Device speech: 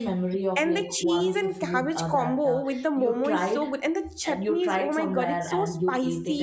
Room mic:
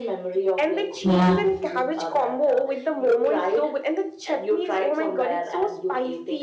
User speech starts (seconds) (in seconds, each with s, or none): 1.0 s